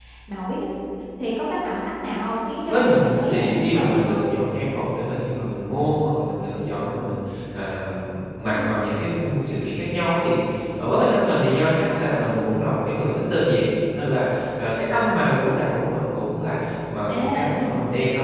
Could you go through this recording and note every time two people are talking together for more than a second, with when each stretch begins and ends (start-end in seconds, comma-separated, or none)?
2.7-4.1